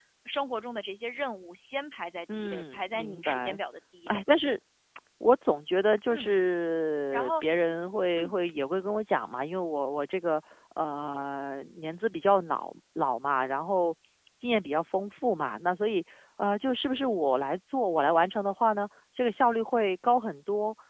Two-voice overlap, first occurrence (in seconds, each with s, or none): 2.3 s